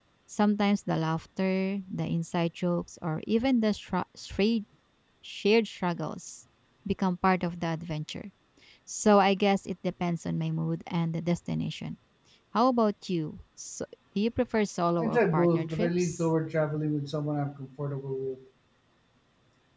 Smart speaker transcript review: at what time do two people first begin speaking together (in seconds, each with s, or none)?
15.0 s